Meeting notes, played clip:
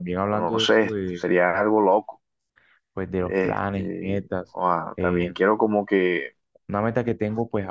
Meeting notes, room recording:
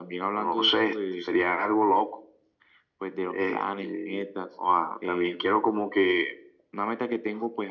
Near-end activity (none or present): none